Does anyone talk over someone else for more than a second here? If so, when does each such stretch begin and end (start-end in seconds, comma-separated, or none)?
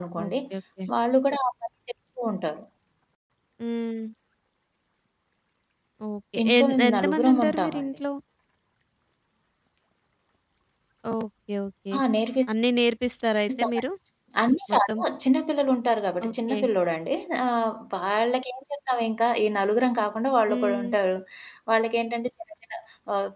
6.4-7.9